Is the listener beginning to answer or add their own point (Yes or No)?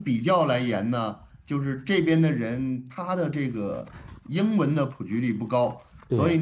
No